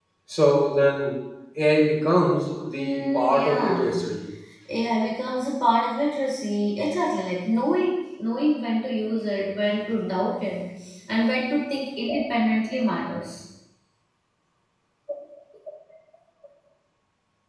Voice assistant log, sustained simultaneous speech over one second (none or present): present